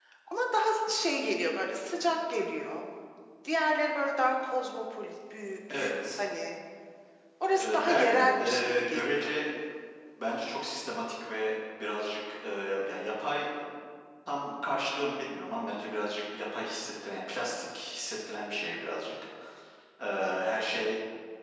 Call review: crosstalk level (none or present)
present